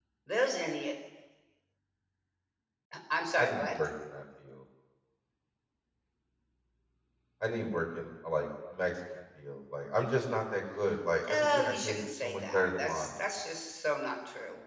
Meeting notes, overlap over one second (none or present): present